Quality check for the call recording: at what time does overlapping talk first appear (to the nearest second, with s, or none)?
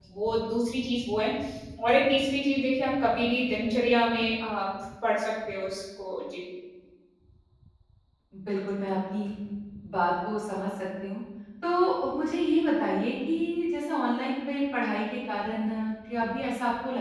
none